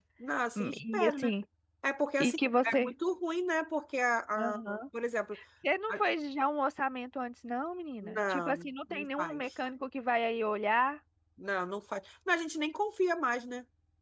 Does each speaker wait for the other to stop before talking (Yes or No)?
No